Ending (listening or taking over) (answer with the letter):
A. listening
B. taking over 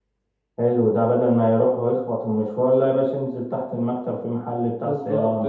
B